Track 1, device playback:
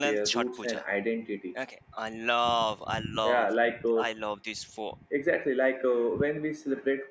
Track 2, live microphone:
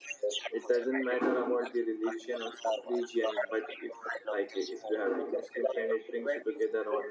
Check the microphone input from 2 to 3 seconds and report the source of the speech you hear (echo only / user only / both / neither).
both